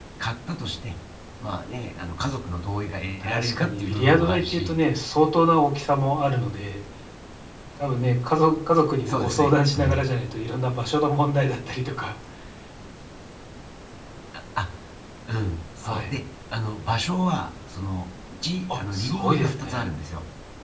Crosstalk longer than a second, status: present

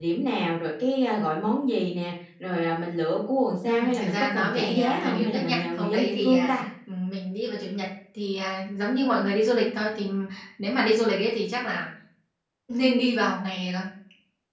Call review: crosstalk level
present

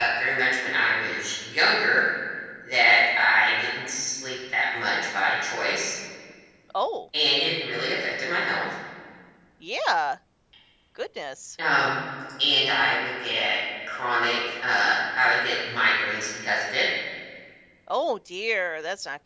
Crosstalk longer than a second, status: none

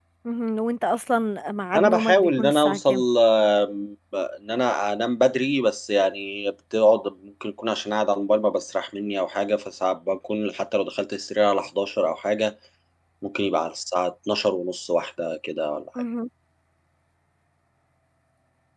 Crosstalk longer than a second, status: present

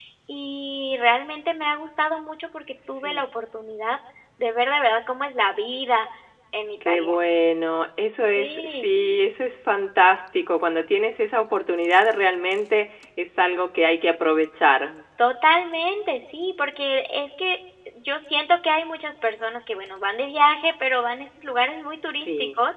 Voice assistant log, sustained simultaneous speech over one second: none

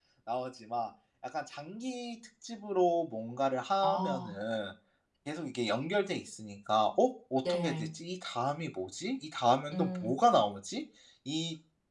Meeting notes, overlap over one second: none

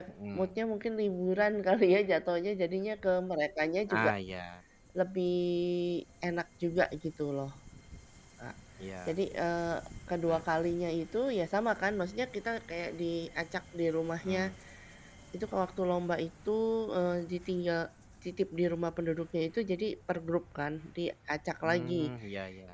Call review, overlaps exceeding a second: none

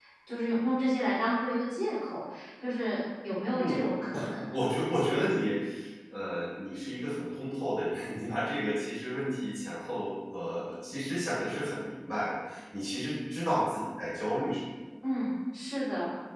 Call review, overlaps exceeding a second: none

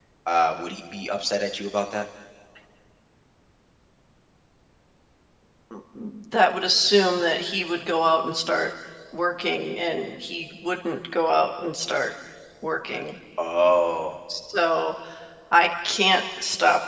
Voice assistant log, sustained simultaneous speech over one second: none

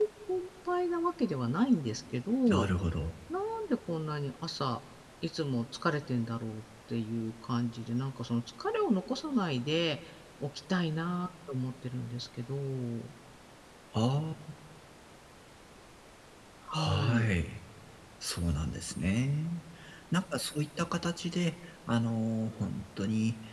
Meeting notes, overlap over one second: none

